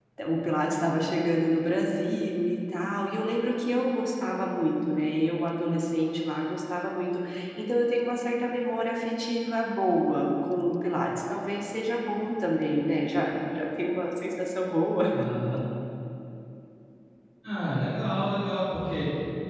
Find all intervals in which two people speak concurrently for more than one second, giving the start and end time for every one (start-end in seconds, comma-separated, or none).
none